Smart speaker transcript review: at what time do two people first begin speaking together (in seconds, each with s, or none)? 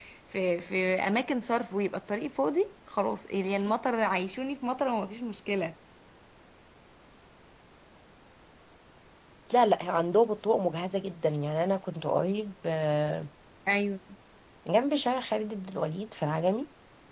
none